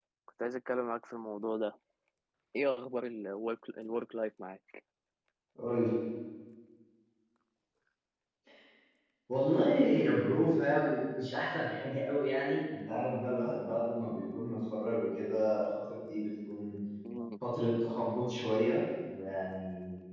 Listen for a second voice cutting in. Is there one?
No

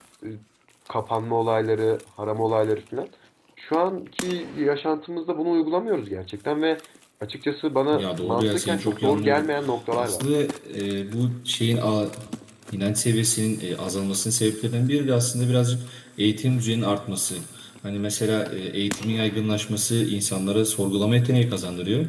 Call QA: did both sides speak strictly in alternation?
No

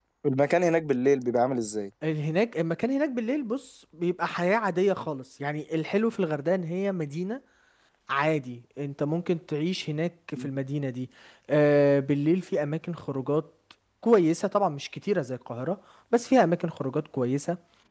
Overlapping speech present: No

